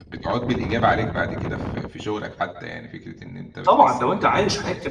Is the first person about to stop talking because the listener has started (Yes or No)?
Yes